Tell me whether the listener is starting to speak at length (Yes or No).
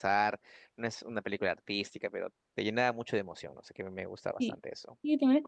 Yes